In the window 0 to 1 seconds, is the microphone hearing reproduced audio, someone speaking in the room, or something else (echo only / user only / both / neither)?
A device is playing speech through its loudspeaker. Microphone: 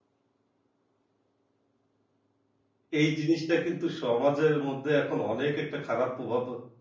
neither